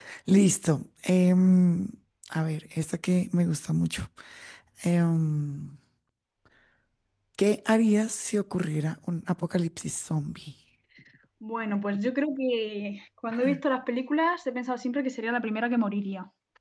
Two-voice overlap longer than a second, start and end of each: none

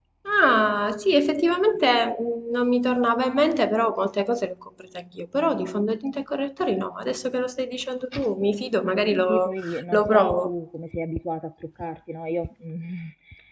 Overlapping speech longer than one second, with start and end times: 9.1-10.5

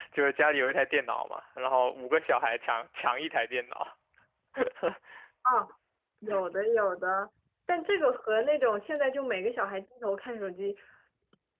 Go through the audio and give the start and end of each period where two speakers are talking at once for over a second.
none

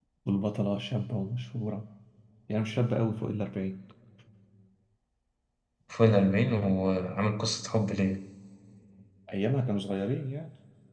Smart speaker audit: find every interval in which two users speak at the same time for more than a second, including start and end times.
none

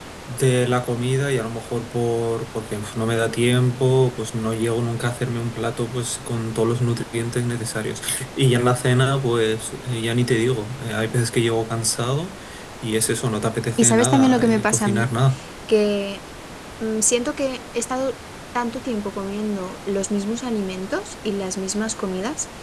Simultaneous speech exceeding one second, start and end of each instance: 13.8-15.1

